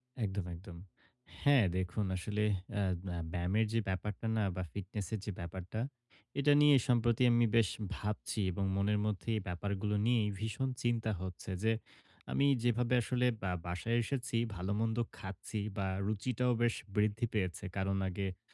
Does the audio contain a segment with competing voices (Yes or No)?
No